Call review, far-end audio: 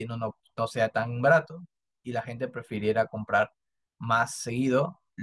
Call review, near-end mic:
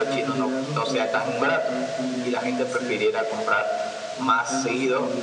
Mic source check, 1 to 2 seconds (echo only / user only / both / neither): both